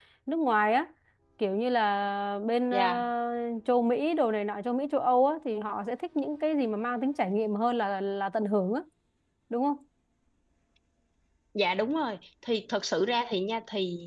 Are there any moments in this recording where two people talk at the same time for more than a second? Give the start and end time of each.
none

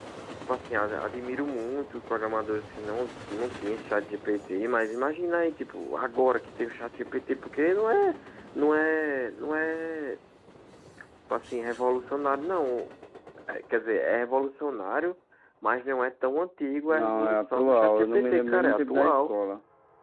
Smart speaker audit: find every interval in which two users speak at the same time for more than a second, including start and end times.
16.9-19.3

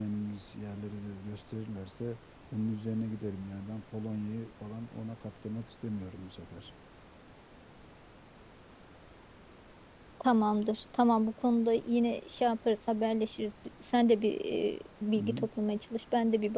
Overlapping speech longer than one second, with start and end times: none

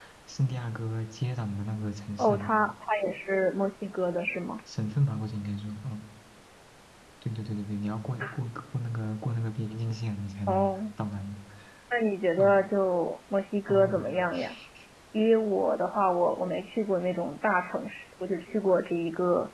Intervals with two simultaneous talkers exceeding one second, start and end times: none

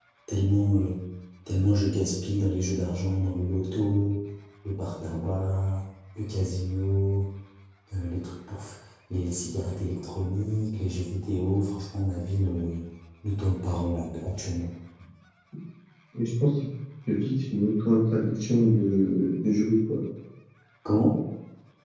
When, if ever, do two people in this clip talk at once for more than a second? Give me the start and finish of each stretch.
none

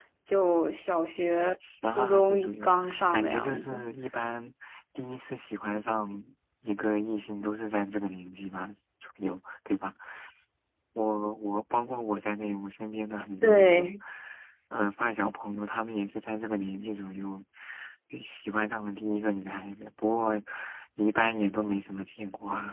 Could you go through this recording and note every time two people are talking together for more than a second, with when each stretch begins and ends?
1.9-3.8

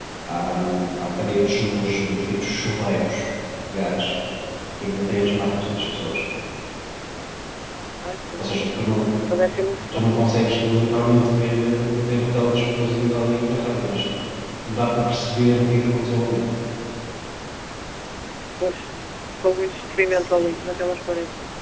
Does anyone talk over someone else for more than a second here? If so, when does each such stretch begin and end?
none

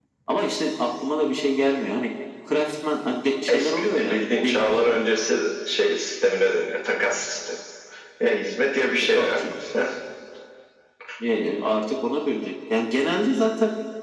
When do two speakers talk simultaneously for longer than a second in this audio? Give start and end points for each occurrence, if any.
3.5-5.0

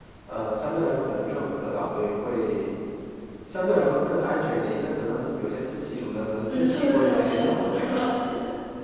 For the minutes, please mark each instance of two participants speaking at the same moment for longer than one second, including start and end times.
6.5-8.0

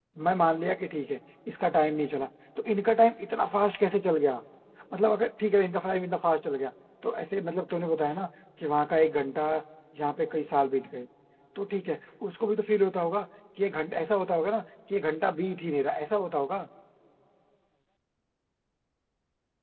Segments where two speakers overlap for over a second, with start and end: none

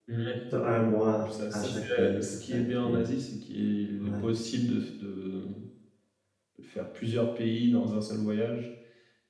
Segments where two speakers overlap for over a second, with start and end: 1.3-3.0

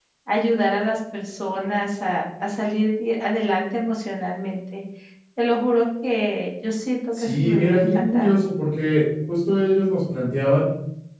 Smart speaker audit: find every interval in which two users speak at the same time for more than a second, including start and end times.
7.1-8.3

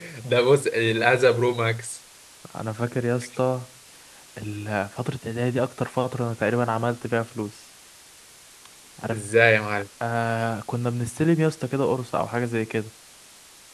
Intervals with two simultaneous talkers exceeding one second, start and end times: none

